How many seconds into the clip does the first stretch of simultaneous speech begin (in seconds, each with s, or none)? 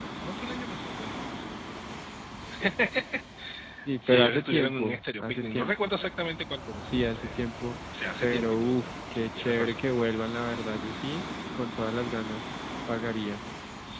4.1 s